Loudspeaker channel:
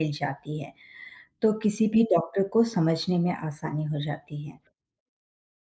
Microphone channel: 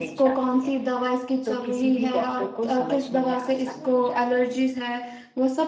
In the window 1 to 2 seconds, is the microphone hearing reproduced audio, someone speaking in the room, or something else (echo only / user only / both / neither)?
both